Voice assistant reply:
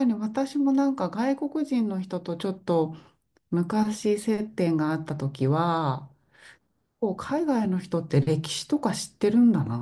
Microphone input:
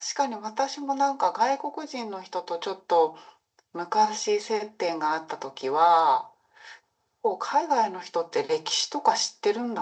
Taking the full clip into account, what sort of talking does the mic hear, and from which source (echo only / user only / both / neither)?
echo only